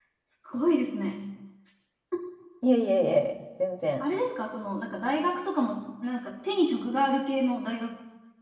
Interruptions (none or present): none